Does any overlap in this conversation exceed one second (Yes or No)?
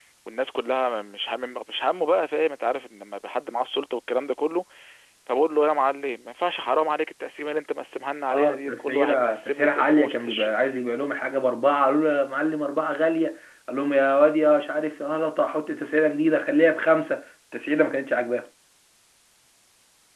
Yes